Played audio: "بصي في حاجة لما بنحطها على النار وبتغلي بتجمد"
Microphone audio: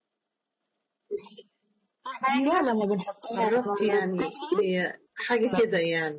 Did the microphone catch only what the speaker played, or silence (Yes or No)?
No